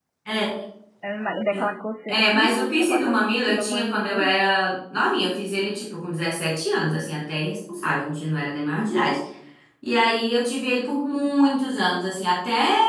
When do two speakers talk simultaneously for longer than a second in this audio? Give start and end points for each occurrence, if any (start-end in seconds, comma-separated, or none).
2.1-4.4